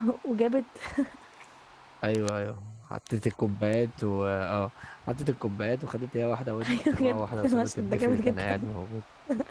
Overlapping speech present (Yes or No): Yes